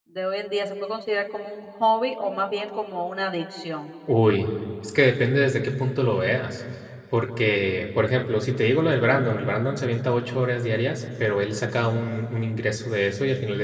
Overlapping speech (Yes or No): No